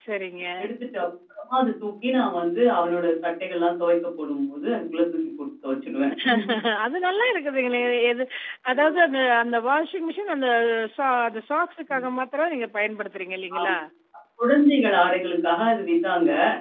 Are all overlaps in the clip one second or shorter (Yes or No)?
Yes